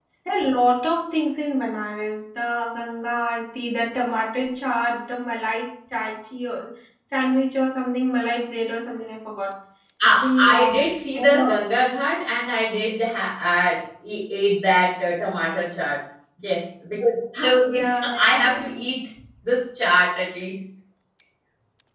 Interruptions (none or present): present